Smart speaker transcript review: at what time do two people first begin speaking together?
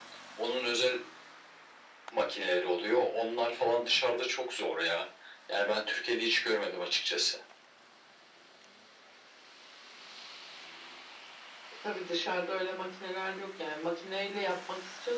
none

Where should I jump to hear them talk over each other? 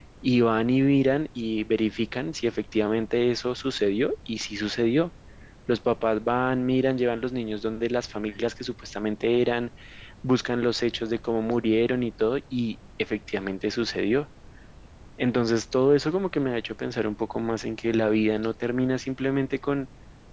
none

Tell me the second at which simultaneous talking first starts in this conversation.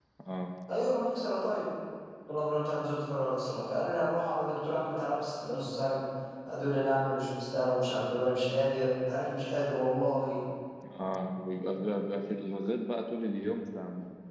none

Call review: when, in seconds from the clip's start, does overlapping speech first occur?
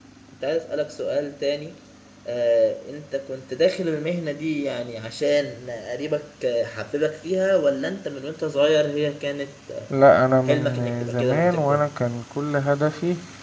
10 s

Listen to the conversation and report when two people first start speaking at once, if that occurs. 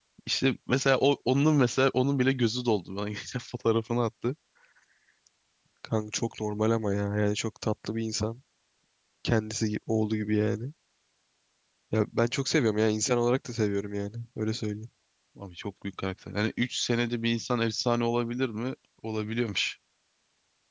none

